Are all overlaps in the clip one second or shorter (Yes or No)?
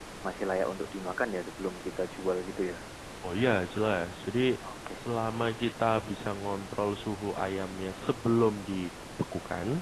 Yes